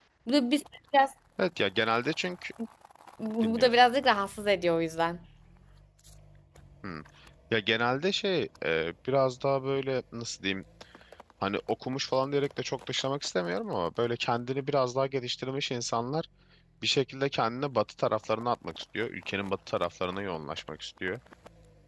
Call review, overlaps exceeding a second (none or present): none